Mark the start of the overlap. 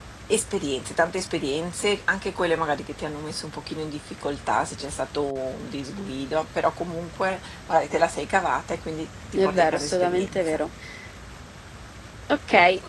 9 s

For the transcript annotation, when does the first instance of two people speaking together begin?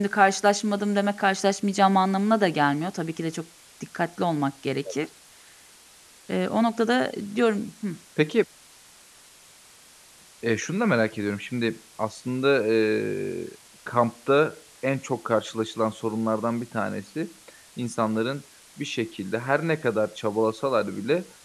none

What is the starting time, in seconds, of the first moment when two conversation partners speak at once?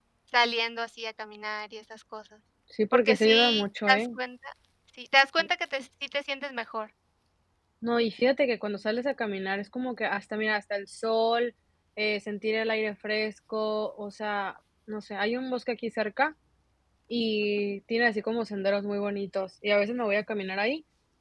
3 s

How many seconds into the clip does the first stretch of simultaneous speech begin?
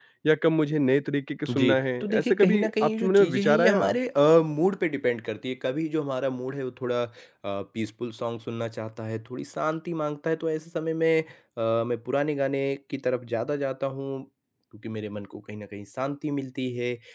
1 s

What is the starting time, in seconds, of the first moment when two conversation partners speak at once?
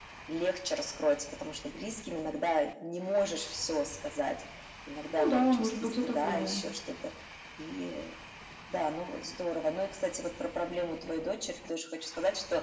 5 s

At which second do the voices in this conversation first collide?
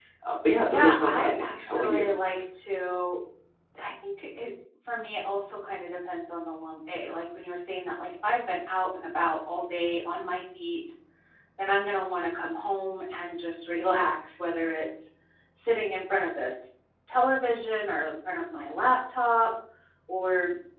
1 s

